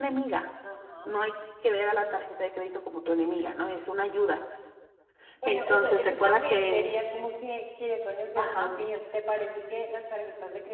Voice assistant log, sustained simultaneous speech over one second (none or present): present